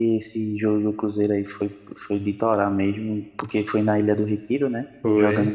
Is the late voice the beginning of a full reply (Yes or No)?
No